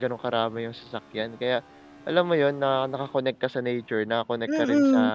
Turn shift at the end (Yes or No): Yes